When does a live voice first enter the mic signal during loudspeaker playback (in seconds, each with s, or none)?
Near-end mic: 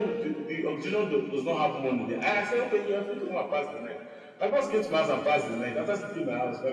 none